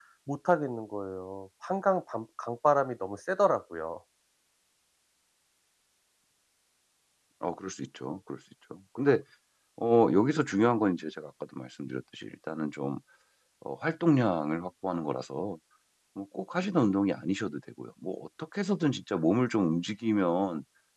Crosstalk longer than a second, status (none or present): none